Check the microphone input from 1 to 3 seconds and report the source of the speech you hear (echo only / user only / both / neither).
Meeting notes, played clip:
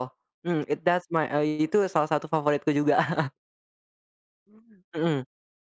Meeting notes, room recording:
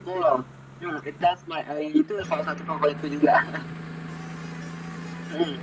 echo only